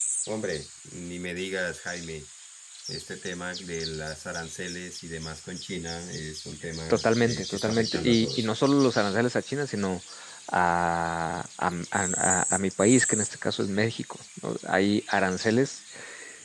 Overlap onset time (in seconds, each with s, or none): 6.9 s